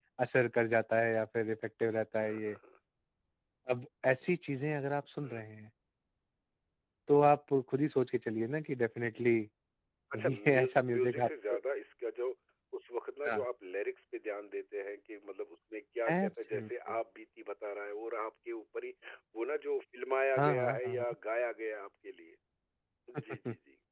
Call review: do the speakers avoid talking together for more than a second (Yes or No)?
No